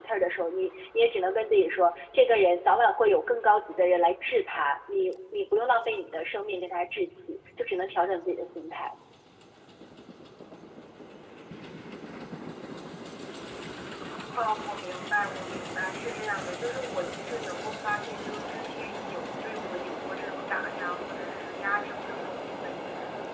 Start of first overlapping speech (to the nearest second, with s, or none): none